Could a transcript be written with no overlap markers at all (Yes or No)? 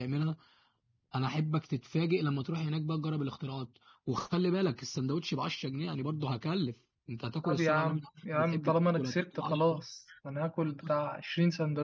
No